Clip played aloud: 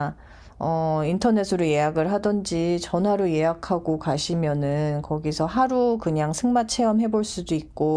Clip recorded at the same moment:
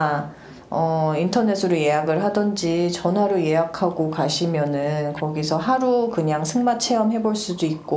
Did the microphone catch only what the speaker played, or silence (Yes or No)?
Yes